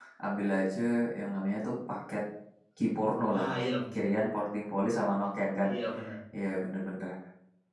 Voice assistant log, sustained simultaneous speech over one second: none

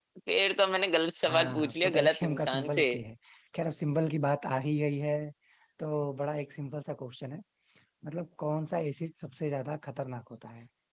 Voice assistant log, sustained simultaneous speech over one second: present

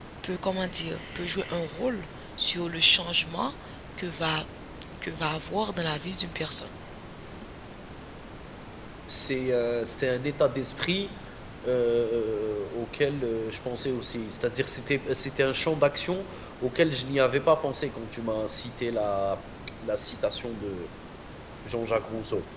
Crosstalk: none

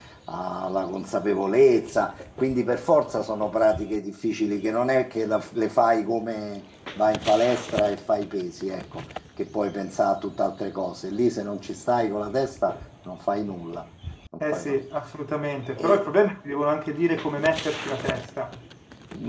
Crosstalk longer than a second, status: none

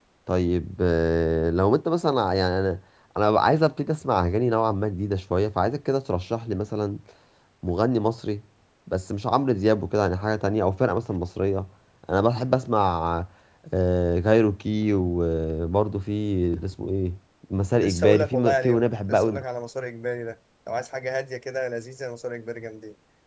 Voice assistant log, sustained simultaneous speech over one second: present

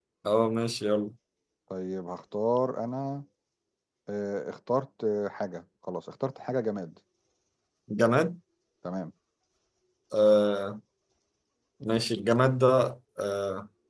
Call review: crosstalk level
none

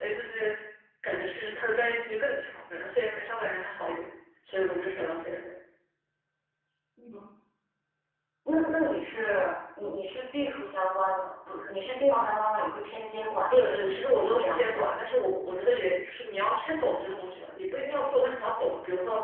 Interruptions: present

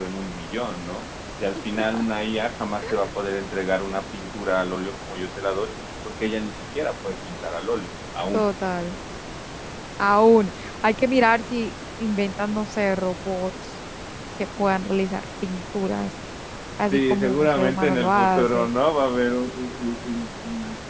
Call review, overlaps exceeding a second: present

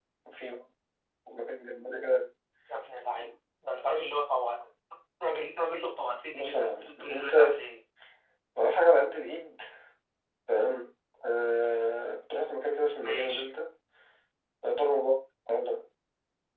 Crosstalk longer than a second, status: present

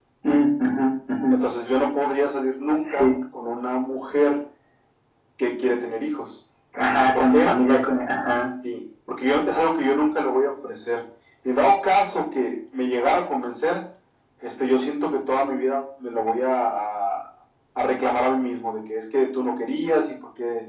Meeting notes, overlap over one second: none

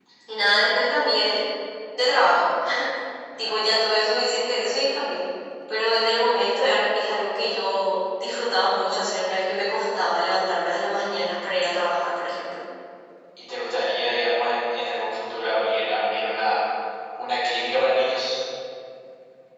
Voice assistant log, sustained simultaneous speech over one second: none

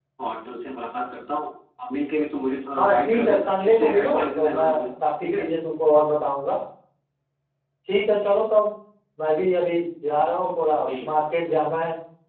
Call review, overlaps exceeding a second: present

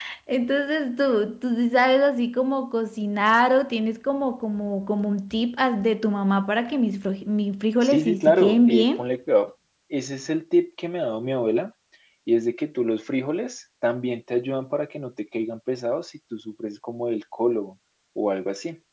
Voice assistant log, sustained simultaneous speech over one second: present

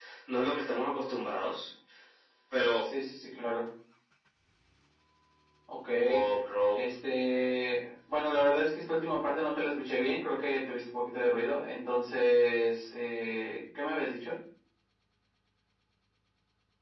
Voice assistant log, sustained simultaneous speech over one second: none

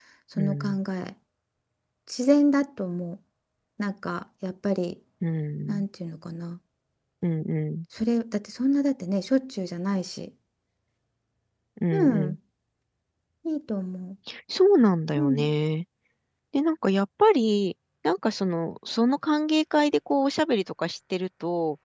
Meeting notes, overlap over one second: none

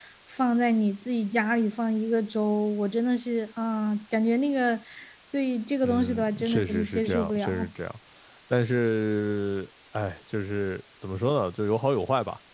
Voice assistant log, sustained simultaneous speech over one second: present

